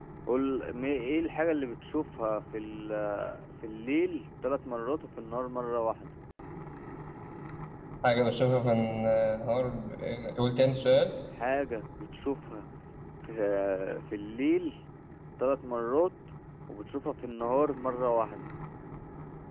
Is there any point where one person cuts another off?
No

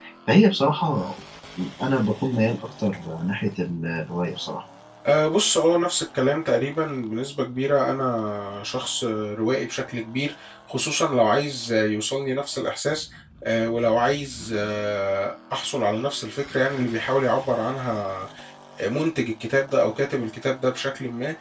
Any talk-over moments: No

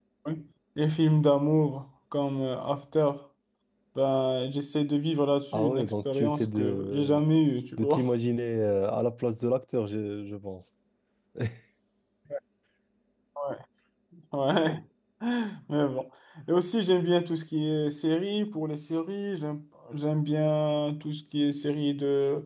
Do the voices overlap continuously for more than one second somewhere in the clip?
Yes, from 5.5 s

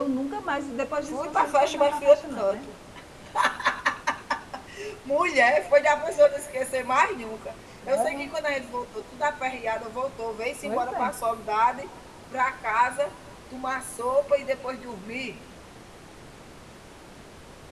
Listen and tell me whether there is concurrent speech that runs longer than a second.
Yes, from 1.1 s

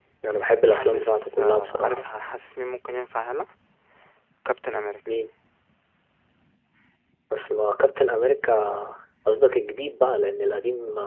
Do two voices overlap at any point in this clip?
Yes, from 0.6 s

